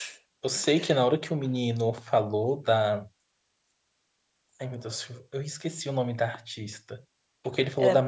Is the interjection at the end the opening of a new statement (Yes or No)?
No